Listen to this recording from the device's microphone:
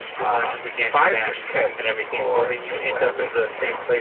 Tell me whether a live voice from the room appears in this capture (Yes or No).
No